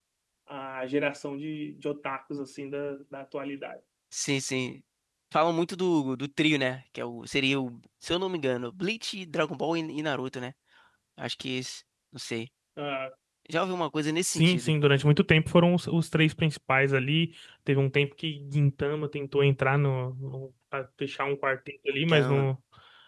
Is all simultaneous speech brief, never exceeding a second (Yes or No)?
Yes